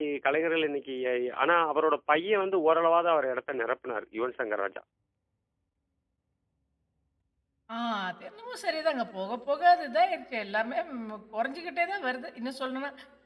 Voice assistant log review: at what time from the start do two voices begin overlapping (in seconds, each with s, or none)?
none